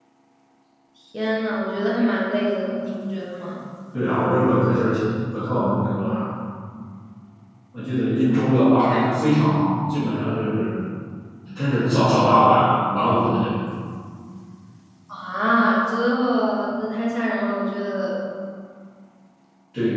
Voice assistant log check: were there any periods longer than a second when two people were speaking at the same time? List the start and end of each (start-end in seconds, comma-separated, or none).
none